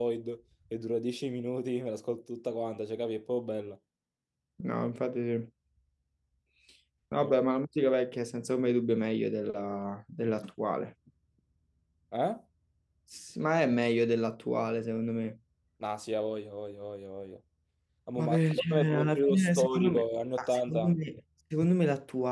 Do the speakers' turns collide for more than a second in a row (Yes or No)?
Yes